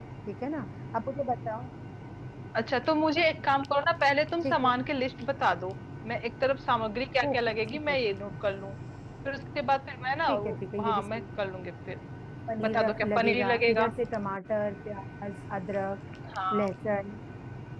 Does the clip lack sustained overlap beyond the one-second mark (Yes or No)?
No